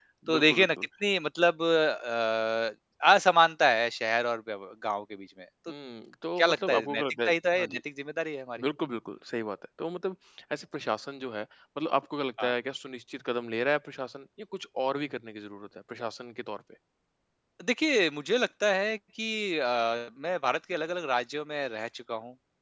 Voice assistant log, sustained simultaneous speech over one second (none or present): present